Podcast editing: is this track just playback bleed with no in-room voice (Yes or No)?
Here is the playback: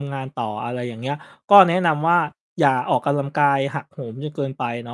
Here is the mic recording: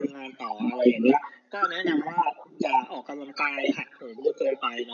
Yes